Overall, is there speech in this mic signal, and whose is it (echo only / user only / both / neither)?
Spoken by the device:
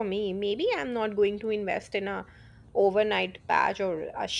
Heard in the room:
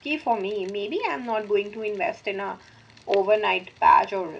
echo only